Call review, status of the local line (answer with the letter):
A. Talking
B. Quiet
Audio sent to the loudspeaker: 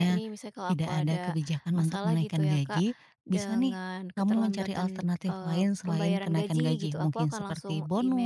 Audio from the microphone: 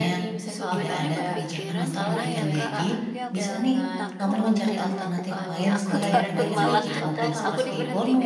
A